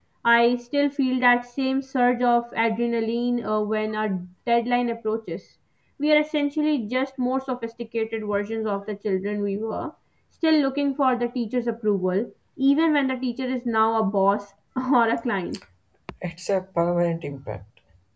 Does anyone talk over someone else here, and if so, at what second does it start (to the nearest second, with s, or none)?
none